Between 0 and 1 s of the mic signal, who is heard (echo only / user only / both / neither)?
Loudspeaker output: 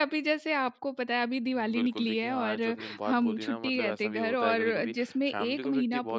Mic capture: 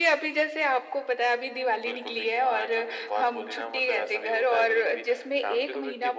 echo only